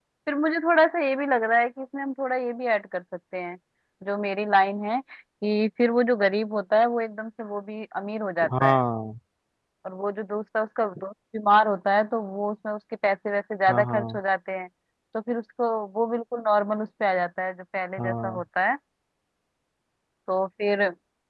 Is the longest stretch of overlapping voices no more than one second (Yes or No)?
Yes